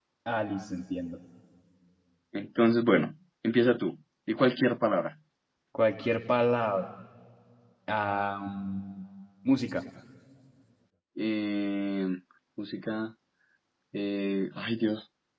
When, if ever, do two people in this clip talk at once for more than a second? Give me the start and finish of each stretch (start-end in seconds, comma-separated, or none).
none